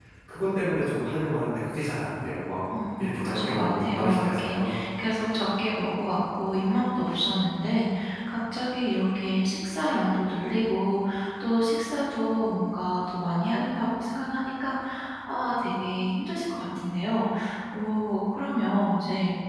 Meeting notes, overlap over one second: present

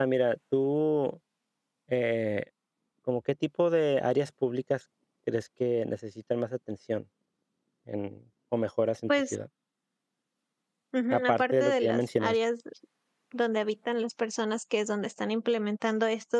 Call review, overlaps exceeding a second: present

